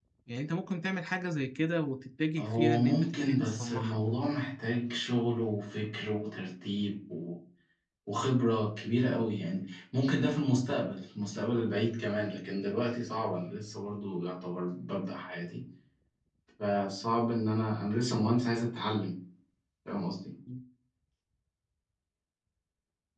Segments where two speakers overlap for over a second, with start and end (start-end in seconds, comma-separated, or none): 2.4-4.0